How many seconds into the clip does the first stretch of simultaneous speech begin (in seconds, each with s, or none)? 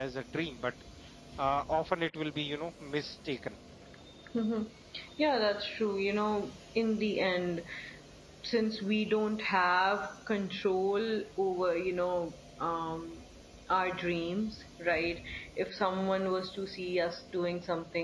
none